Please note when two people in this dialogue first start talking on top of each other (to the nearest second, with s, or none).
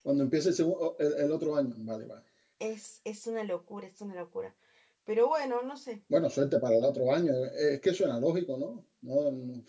none